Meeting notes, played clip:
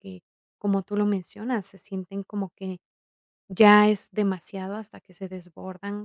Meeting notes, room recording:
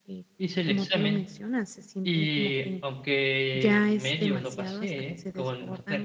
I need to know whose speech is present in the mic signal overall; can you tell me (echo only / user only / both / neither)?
both